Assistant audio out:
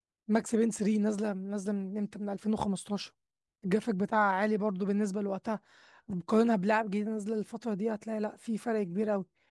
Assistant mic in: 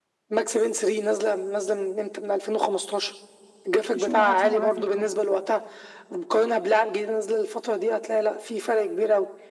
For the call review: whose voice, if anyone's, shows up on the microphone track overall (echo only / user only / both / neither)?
both